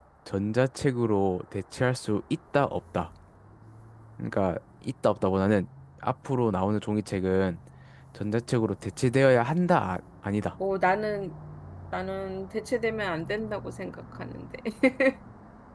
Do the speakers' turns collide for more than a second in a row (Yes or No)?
No